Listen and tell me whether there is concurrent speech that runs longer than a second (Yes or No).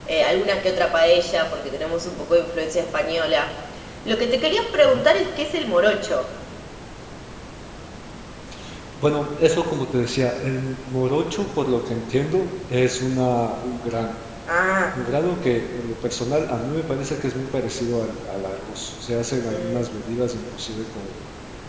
No